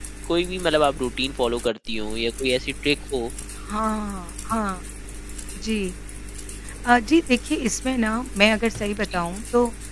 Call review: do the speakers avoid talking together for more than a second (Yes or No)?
Yes